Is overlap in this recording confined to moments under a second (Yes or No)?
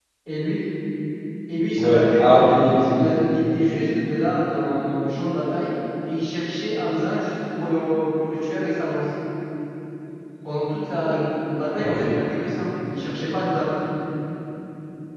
No